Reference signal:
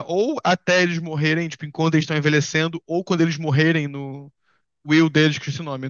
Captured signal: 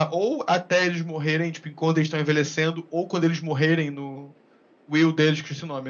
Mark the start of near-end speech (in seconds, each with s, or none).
none